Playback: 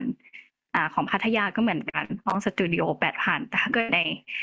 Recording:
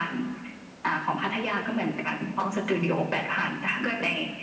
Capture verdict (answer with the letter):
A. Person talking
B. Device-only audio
B